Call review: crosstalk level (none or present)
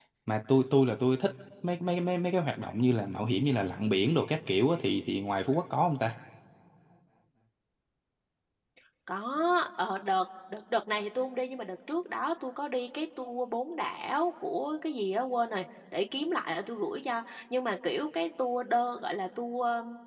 none